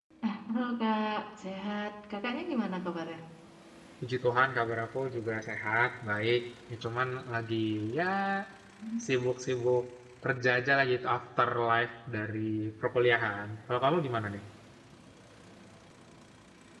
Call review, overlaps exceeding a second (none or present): none